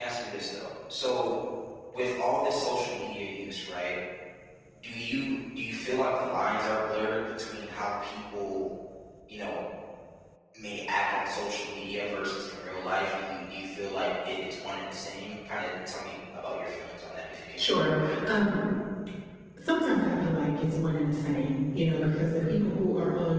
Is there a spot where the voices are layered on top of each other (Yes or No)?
No